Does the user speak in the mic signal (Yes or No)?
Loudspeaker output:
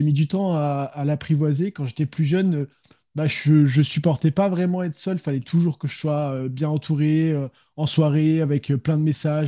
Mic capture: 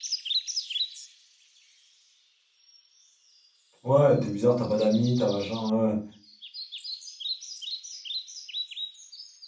Yes